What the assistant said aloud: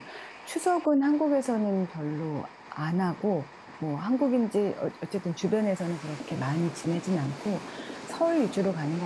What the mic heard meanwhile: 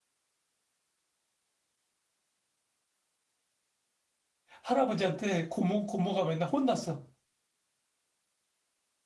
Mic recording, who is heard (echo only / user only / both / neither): user only